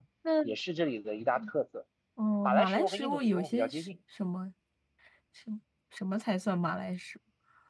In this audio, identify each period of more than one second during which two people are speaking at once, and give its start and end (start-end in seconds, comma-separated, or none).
2.4-3.9